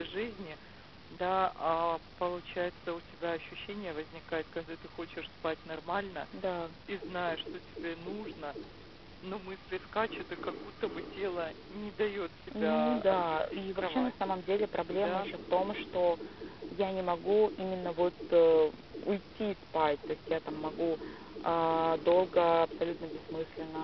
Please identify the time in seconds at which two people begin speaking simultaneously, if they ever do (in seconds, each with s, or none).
12.6 s